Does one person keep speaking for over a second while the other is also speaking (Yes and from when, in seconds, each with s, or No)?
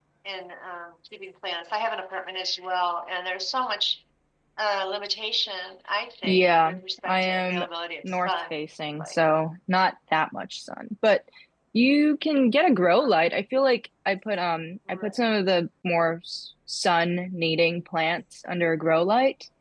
Yes, from 6.2 s